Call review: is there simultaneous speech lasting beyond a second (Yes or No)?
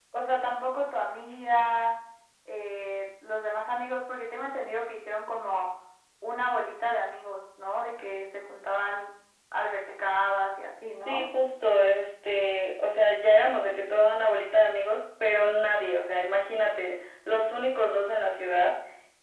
No